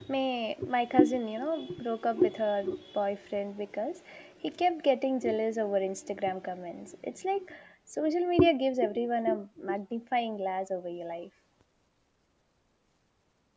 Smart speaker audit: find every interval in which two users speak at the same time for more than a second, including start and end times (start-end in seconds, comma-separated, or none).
none